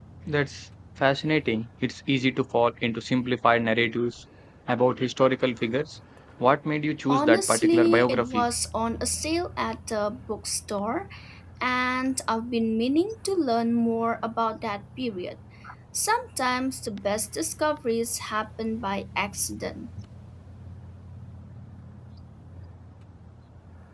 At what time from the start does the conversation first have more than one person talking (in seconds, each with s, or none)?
7.1 s